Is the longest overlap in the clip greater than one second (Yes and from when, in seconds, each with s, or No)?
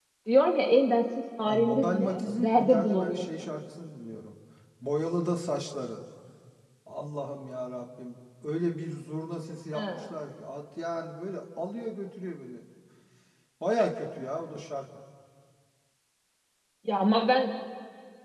Yes, from 1.5 s